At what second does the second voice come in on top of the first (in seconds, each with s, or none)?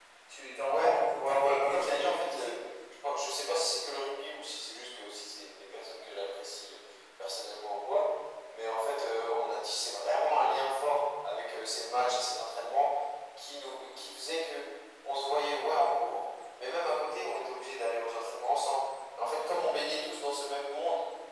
0.6 s